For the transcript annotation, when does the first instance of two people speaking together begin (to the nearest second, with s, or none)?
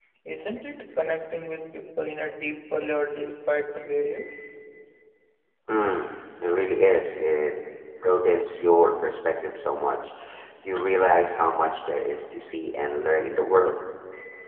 none